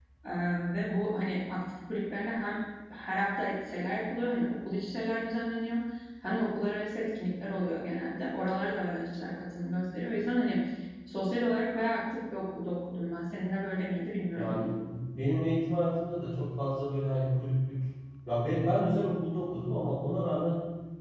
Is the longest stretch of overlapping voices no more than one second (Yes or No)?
Yes